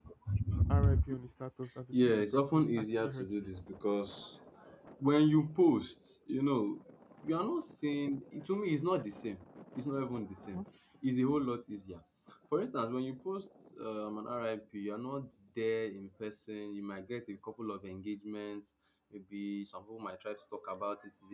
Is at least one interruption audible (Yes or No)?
Yes